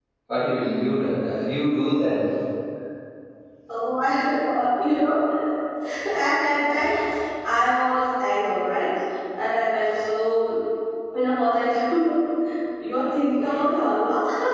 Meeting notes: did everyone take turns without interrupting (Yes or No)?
Yes